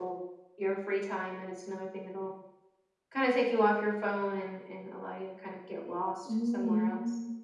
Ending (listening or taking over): taking over